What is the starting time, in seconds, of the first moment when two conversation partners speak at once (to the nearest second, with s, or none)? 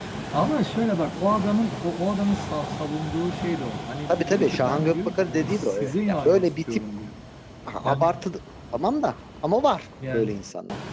4 s